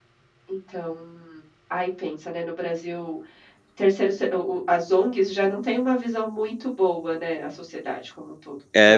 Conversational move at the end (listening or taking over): taking over